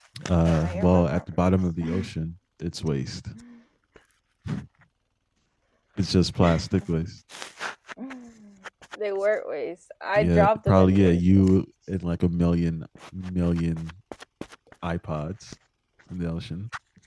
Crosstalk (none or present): present